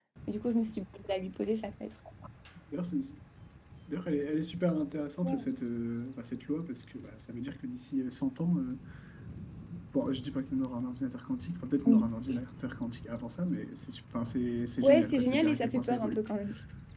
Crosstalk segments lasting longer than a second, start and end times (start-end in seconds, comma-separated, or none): 14.8-16.2